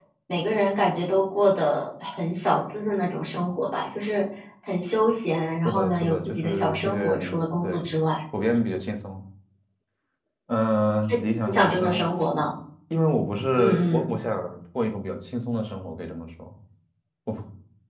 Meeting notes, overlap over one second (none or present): present